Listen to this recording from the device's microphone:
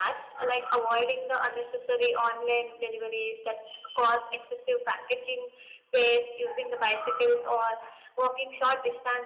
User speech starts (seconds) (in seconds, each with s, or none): none